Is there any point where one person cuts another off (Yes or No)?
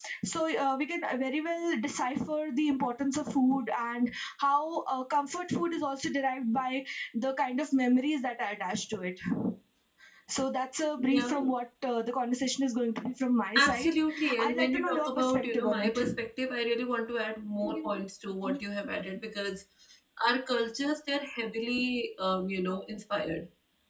Yes